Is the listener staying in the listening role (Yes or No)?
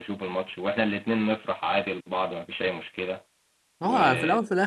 No